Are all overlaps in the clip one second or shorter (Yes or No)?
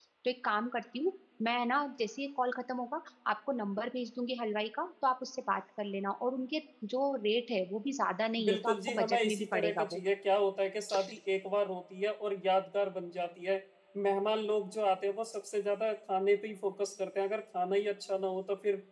No